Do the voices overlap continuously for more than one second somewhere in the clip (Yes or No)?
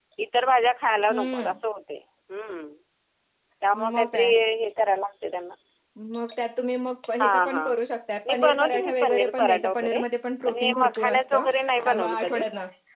Yes